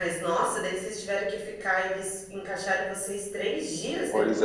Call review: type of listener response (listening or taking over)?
taking over